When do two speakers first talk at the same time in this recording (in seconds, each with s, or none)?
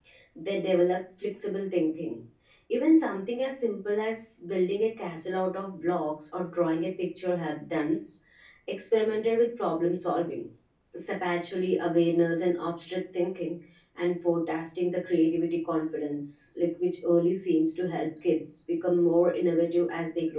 none